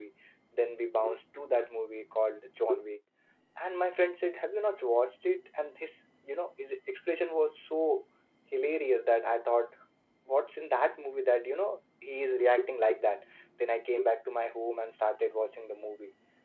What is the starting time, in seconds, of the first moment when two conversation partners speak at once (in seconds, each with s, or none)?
none